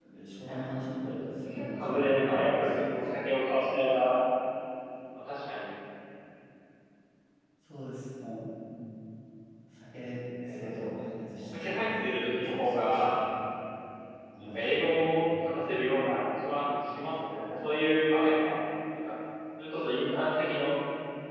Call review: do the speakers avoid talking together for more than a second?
No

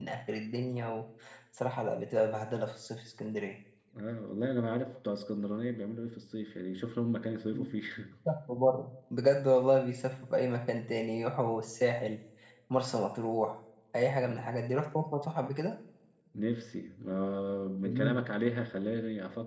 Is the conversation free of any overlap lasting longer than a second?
Yes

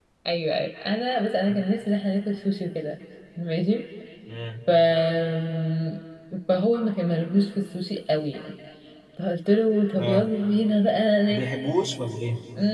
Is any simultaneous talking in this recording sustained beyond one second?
No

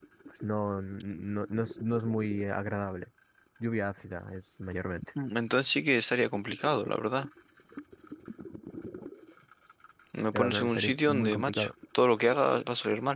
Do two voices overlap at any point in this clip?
Yes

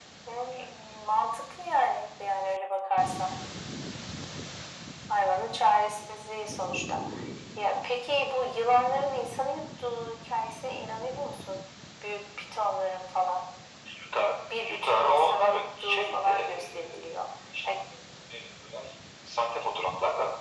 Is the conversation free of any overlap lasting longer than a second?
No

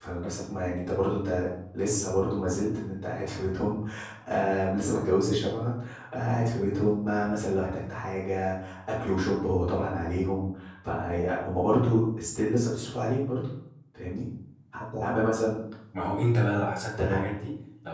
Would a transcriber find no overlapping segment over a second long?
Yes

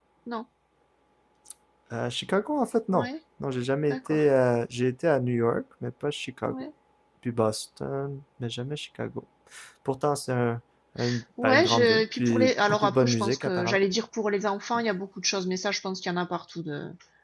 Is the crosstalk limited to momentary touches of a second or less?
No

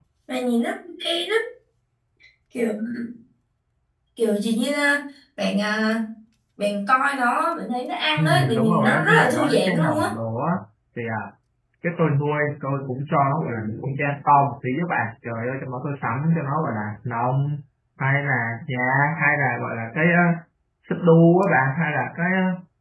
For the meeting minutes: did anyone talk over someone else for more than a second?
Yes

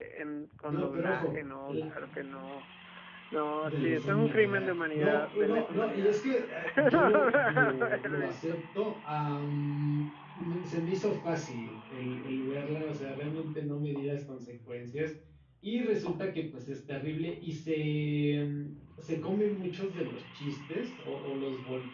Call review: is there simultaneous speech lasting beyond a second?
Yes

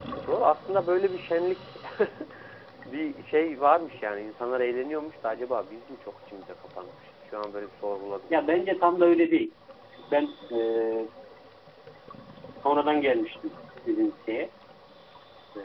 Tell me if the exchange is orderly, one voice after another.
Yes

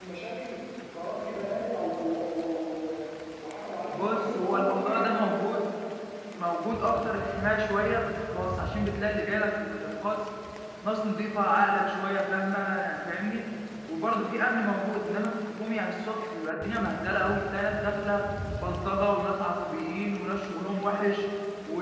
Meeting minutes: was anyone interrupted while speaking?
Yes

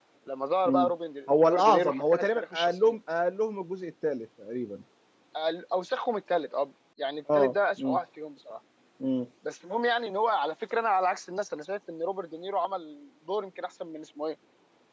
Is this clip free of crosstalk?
No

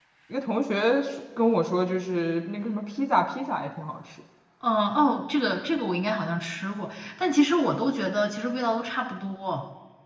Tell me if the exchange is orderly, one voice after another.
Yes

